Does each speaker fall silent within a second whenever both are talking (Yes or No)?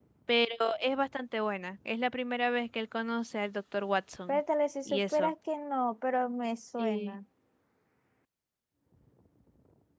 Yes